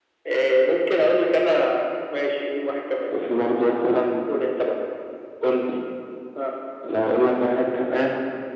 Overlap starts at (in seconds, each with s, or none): none